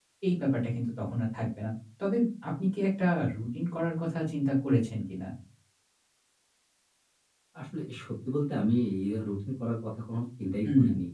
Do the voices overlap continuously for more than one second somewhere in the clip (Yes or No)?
No